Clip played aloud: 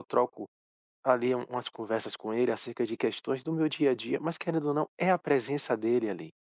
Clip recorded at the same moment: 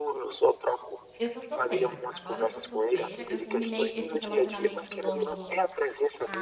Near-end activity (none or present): present